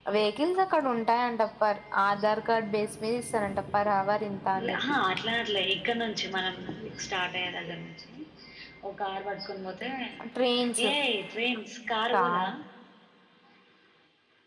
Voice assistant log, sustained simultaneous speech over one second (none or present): none